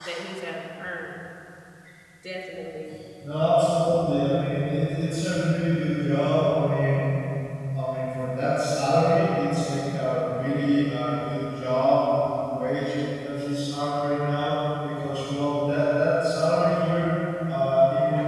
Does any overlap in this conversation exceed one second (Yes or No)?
No